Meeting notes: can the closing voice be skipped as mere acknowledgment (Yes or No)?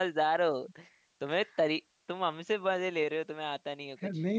No